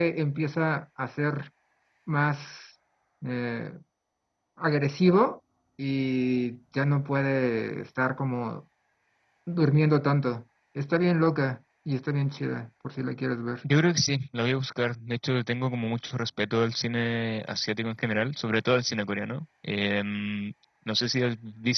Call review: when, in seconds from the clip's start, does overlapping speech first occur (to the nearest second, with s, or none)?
none